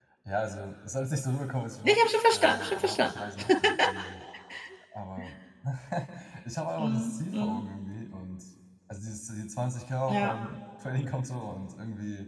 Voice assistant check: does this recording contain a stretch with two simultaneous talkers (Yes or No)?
Yes